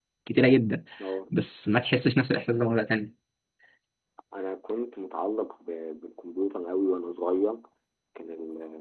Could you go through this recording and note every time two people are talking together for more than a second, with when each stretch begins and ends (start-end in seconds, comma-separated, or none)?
none